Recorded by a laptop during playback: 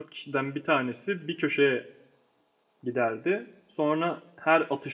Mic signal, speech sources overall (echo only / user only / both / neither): user only